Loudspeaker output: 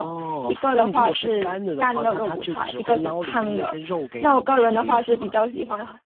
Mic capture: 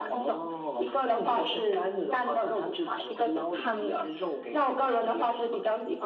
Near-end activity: none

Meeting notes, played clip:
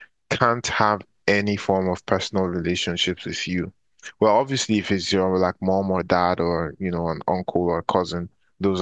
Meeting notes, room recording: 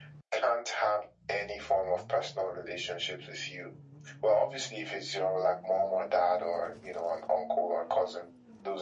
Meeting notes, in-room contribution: none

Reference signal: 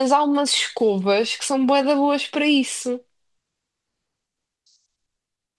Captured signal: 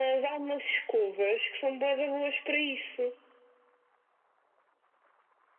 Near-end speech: none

